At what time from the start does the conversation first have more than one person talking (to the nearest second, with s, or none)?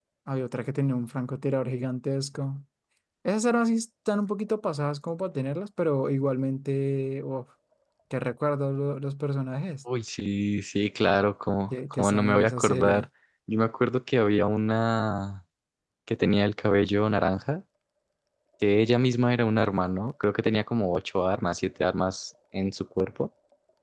12 s